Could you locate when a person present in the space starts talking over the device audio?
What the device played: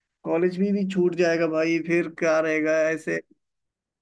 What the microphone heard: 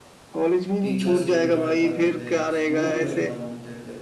0.8 s

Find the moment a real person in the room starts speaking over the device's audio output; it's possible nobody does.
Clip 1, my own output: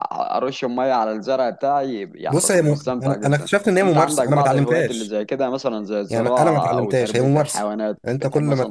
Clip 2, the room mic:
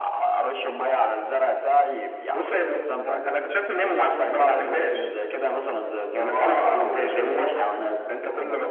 none

